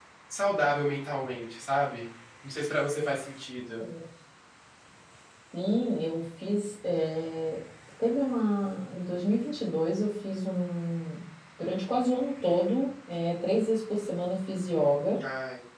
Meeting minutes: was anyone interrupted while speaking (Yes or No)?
No